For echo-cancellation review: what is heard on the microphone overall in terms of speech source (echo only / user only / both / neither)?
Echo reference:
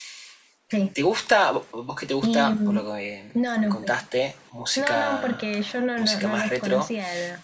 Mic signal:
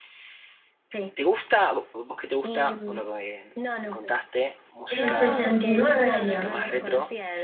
both